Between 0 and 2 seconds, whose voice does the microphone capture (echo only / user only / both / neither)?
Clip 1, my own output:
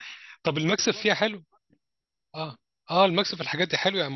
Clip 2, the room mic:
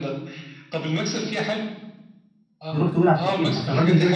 echo only